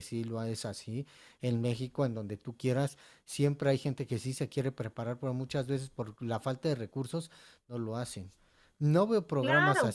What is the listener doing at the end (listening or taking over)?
taking over